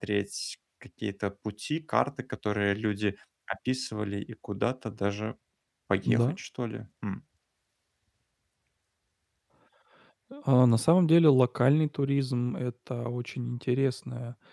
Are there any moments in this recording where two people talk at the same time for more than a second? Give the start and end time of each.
none

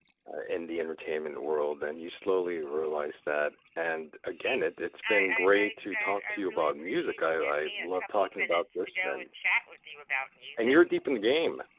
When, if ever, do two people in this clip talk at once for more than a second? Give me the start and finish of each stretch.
5.1-9.3

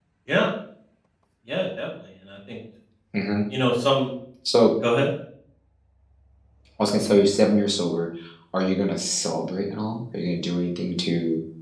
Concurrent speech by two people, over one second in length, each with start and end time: none

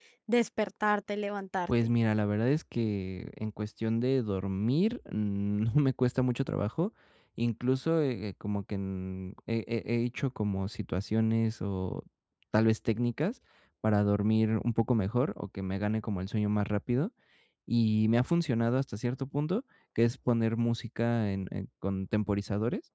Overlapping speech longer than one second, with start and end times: none

